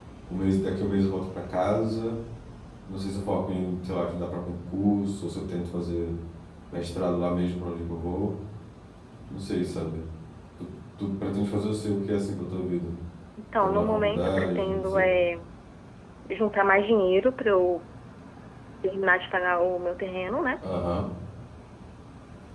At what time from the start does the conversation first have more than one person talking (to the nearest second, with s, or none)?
14 s